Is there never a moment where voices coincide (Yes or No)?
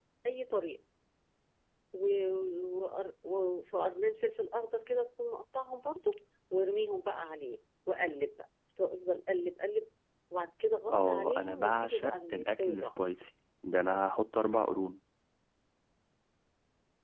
No